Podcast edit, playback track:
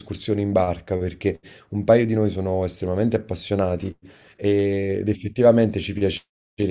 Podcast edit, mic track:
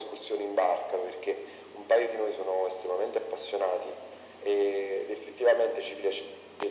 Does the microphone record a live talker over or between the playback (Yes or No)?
No